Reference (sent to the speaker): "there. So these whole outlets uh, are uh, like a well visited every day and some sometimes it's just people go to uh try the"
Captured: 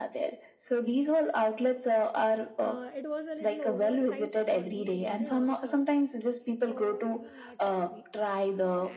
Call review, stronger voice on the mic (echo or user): echo